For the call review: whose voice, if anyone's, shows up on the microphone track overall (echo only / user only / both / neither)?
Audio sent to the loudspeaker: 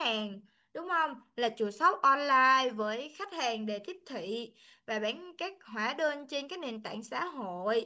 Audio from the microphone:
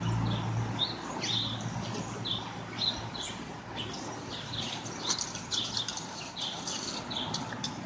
neither